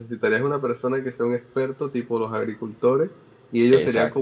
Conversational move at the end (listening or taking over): listening